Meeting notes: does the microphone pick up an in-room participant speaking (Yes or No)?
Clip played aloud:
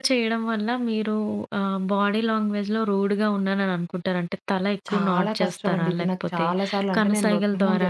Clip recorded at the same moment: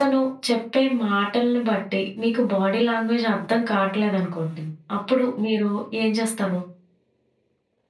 Yes